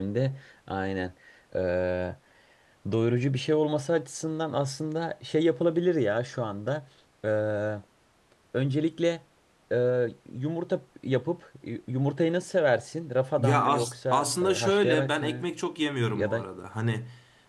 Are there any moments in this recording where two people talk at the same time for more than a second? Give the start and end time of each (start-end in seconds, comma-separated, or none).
13.4-15.4